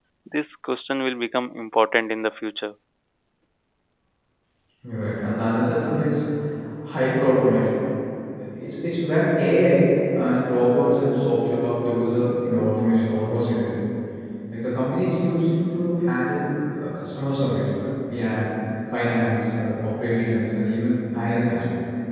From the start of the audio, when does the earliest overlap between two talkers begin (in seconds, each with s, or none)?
none